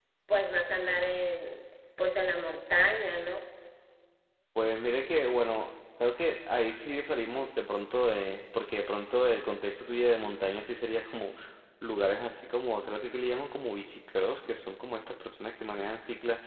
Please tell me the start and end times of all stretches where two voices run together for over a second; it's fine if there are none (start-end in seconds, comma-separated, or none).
none